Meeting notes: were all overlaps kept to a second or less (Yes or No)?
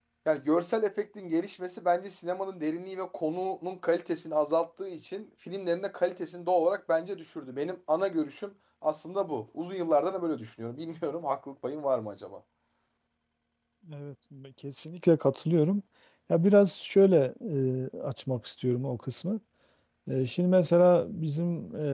Yes